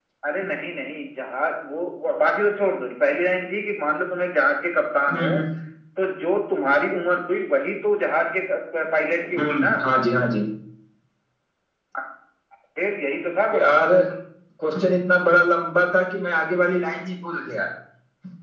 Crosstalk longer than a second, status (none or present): none